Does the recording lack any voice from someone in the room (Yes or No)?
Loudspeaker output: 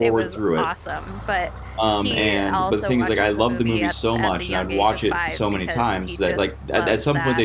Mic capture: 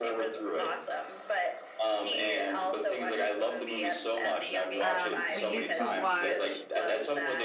No